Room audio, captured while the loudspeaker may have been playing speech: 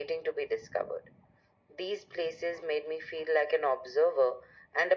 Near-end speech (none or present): none